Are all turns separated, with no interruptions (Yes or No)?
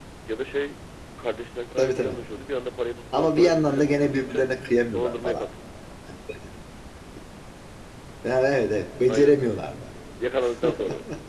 No